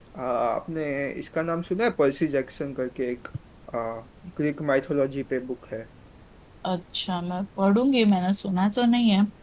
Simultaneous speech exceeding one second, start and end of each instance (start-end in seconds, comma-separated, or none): none